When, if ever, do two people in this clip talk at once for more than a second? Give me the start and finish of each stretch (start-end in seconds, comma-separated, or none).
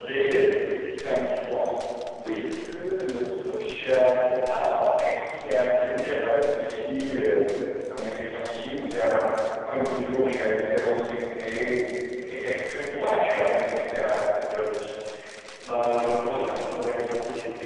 none